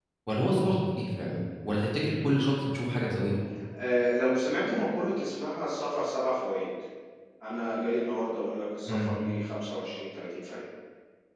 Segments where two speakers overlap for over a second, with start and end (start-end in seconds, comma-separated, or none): none